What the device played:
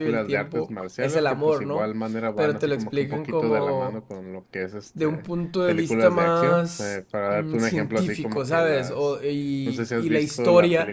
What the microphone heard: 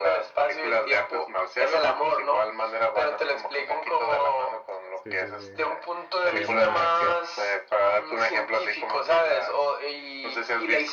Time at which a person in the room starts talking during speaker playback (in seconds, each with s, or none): 4.9 s